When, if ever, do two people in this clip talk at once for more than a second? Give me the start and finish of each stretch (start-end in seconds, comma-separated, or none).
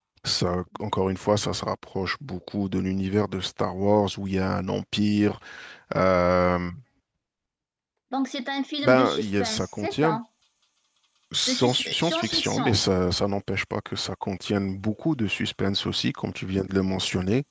8.8-10.2, 11.5-12.8